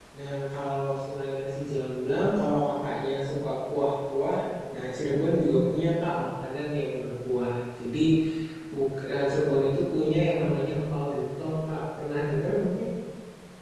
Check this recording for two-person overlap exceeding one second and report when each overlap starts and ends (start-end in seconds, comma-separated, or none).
none